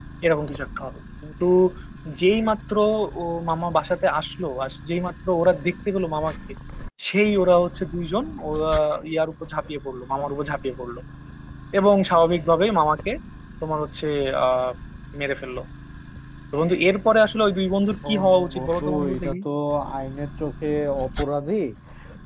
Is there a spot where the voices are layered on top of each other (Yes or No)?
Yes